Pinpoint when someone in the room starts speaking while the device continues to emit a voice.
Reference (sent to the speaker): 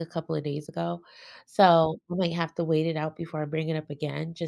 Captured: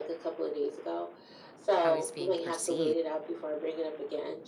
1.7 s

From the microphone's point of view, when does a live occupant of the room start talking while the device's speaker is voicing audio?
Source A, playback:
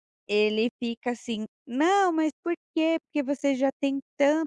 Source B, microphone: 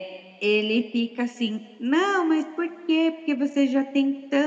none

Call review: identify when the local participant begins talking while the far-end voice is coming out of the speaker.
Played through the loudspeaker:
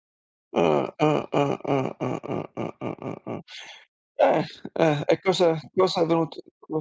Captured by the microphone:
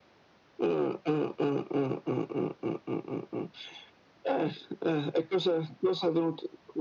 none

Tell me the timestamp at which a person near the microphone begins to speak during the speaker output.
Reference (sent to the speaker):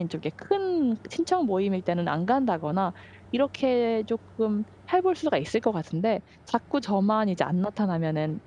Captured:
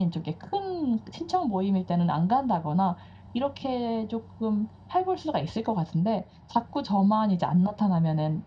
none

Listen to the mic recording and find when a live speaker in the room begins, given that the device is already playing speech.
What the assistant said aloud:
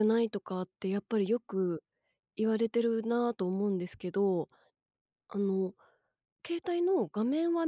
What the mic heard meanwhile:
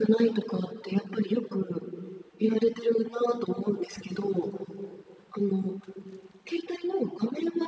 2.4 s

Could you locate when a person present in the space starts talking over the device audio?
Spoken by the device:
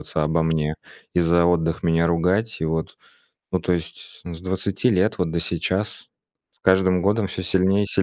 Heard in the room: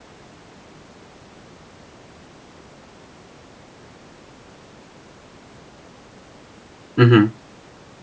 7.0 s

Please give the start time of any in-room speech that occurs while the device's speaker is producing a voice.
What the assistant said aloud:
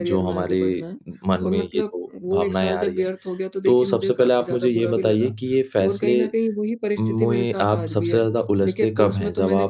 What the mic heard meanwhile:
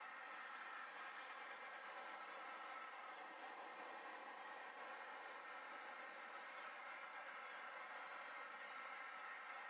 none

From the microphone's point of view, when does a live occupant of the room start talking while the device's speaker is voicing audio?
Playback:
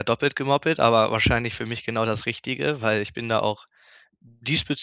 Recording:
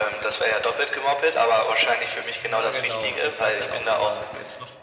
2.4 s

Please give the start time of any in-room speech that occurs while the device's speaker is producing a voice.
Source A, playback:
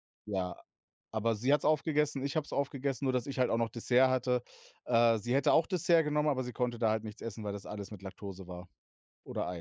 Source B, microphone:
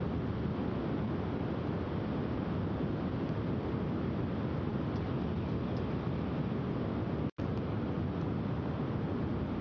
none

